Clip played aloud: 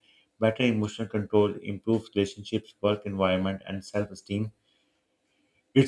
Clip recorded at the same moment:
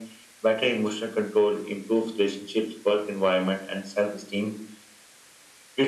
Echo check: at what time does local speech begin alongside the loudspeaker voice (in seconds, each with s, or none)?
none